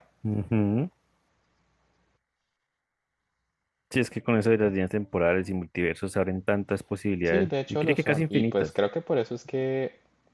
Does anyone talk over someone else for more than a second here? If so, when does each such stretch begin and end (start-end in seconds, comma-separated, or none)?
7.2-8.7